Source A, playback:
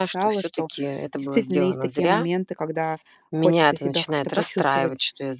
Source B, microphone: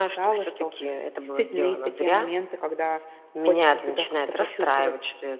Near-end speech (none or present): none